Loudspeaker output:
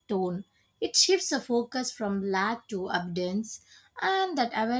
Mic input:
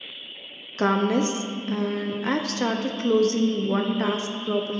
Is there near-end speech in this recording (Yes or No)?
Yes